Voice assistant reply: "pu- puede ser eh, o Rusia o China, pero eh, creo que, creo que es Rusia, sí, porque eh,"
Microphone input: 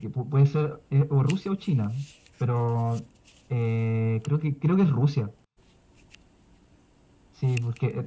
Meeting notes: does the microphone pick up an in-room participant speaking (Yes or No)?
No